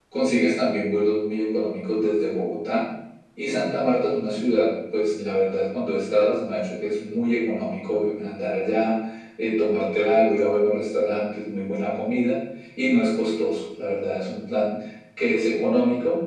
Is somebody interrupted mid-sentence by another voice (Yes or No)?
No